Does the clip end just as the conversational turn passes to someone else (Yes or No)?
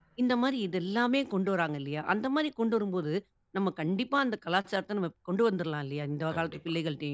Yes